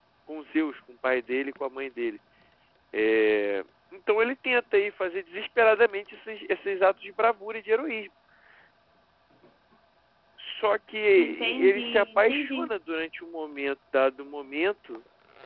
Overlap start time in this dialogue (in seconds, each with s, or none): 11.2 s